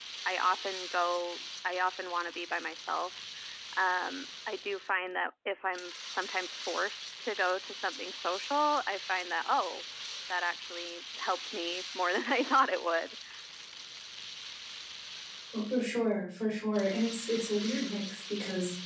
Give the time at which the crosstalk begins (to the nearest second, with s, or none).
none